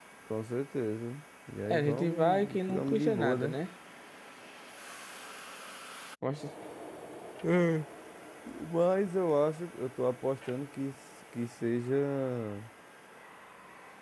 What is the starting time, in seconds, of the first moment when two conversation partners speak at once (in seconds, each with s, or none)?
1.7 s